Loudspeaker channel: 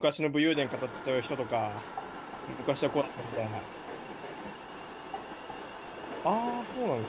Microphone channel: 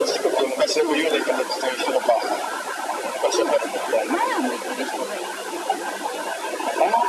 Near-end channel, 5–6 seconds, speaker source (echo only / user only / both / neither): user only